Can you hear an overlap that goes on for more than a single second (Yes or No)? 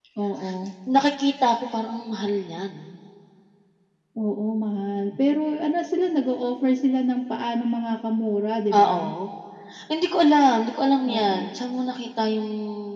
No